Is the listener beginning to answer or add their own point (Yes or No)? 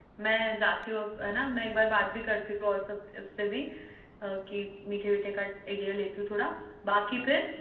No